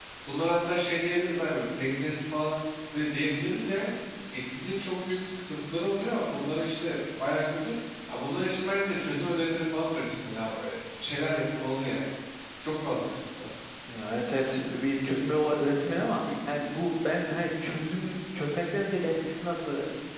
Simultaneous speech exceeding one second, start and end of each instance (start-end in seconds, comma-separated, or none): none